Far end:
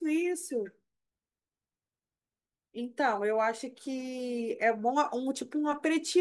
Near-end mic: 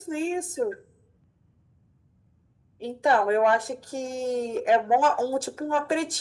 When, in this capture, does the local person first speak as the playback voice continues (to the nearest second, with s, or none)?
none